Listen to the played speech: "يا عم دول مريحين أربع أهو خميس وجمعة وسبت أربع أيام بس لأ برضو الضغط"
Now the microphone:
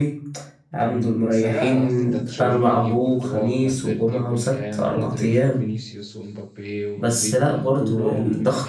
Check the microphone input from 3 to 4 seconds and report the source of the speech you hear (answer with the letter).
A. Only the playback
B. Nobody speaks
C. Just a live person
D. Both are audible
D